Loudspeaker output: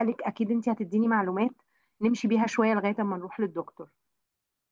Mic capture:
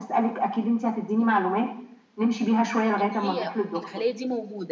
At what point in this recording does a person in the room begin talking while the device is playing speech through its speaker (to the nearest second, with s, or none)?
3 s